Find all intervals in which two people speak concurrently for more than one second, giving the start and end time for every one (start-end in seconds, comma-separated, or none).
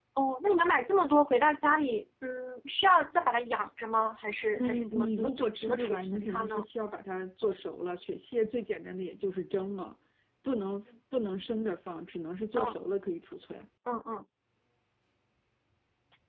4.5-6.6